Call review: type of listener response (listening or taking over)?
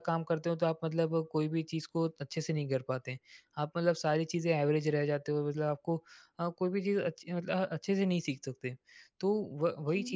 listening